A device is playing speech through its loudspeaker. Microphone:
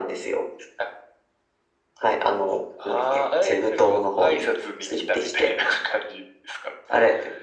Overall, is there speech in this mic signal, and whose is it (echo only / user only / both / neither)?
echo only